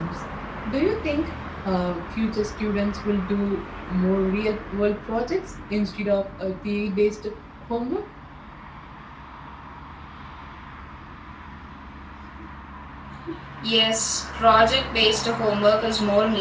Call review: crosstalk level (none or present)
none